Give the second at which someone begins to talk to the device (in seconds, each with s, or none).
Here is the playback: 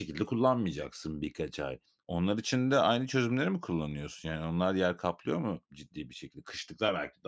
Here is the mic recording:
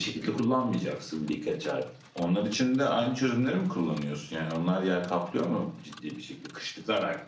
none